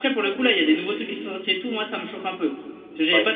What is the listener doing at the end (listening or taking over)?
listening